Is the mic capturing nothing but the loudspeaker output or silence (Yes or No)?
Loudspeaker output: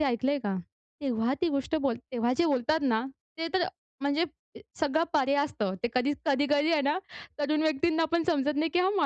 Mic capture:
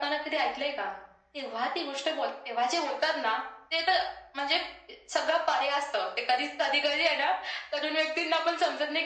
Yes